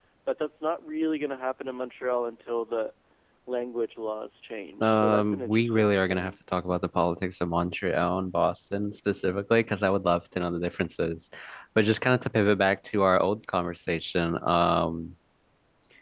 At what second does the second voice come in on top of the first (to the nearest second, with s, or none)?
5 s